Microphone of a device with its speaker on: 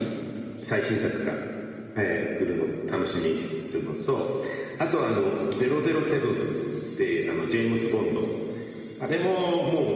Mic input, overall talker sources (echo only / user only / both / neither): echo only